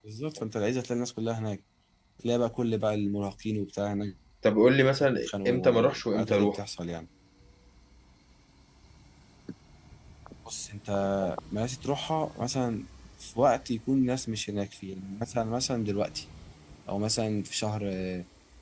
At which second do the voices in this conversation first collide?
5.2 s

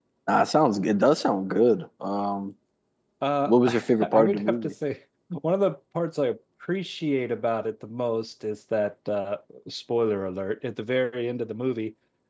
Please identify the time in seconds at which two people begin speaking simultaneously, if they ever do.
3.5 s

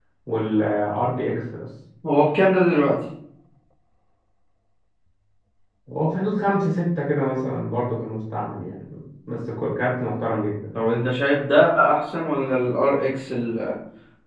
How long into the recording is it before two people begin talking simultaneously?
none

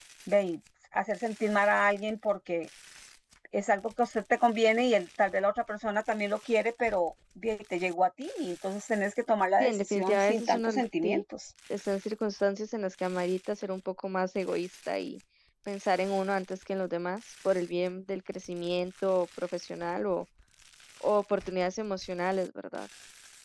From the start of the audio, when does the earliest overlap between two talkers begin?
9.6 s

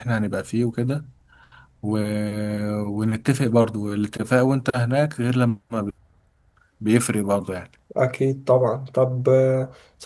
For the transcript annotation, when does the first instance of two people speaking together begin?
none

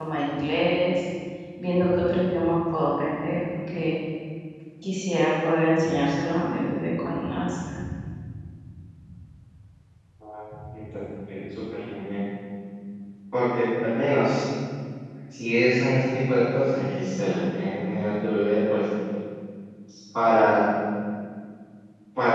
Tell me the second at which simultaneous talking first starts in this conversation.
none

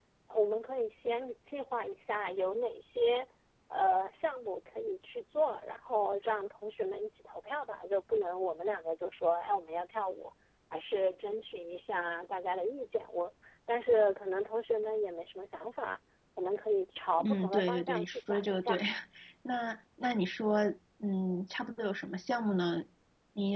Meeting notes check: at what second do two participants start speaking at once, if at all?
17.2 s

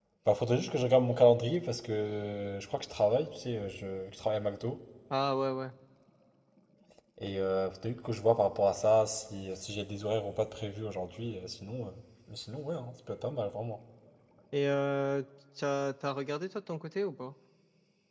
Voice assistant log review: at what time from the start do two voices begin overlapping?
none

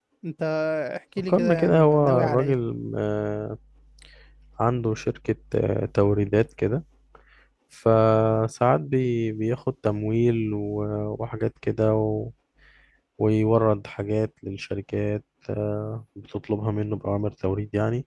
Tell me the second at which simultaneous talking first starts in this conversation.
1.2 s

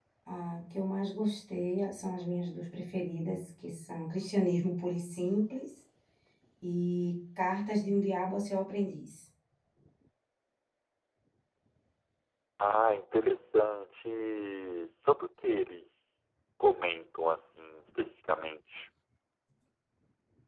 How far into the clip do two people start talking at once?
none

